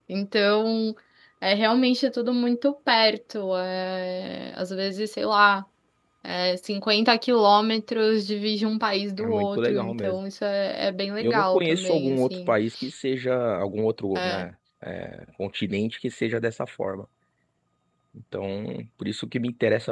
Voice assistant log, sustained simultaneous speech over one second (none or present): present